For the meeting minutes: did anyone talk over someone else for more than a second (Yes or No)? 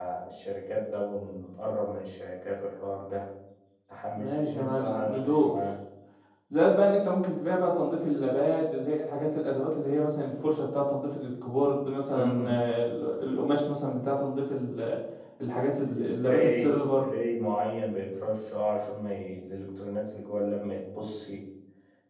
Yes